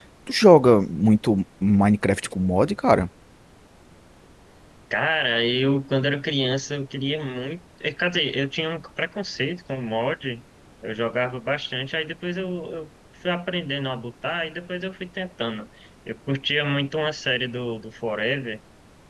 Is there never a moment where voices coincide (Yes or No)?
Yes